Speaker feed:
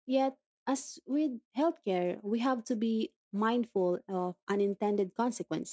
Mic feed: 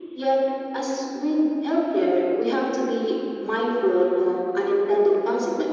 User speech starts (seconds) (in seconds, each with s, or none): none